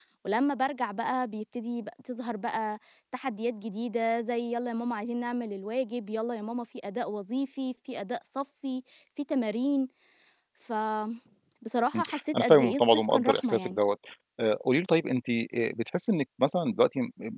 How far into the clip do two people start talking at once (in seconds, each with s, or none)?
12.0 s